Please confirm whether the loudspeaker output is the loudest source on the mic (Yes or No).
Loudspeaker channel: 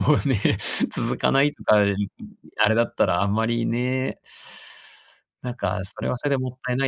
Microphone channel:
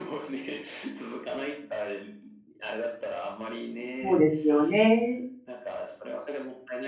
No